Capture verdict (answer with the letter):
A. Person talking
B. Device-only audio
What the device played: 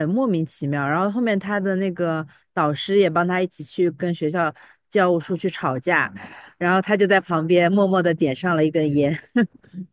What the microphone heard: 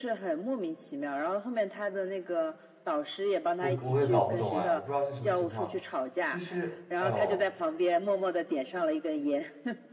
A